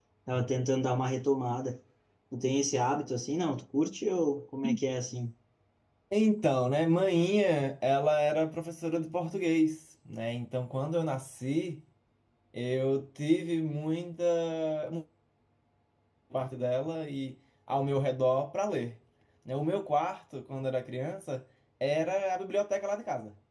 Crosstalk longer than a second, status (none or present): none